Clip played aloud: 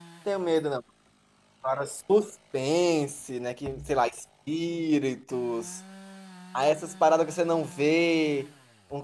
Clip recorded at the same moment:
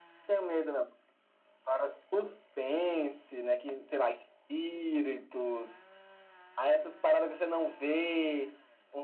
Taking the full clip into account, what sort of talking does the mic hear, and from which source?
echo only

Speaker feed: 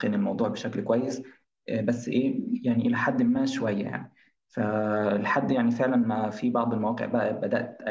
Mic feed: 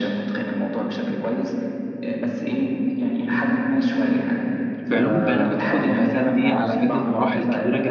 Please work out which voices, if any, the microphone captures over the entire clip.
both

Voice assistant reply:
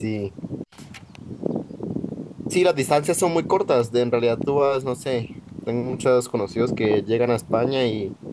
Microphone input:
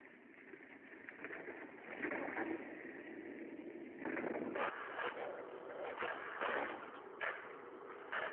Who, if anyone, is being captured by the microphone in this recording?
neither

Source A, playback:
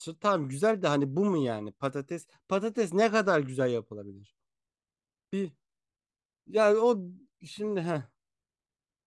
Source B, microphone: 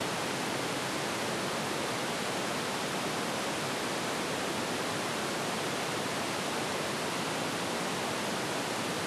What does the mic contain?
neither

